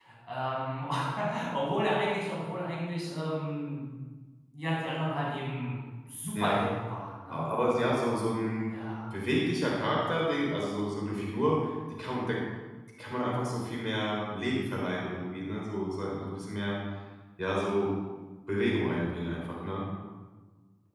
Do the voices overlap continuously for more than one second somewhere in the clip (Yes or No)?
No